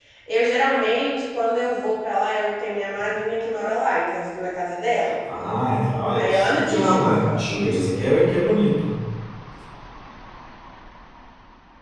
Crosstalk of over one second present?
Yes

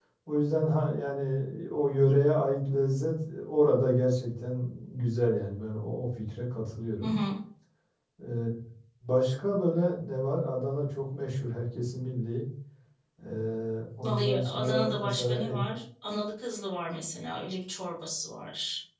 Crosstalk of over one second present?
Yes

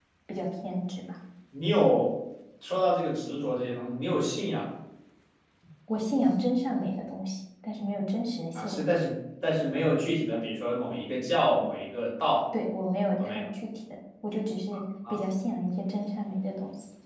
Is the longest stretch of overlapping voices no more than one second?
Yes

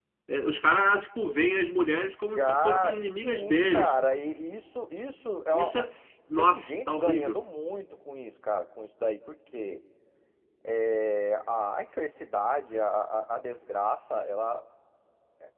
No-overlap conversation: No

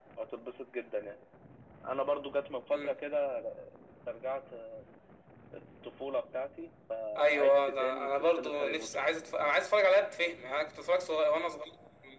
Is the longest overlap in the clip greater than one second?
Yes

